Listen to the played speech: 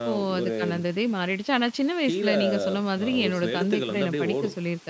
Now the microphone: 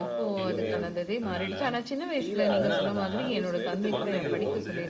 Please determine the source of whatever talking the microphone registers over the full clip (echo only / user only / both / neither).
both